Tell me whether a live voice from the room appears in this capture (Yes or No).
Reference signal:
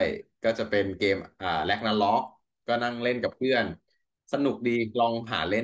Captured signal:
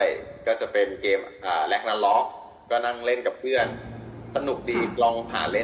Yes